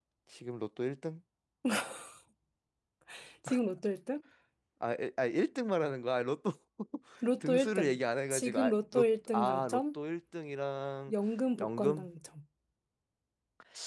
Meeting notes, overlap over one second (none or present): present